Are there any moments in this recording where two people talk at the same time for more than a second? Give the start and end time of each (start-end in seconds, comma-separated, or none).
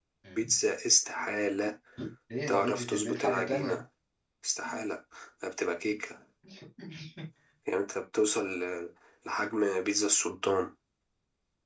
2.5-3.8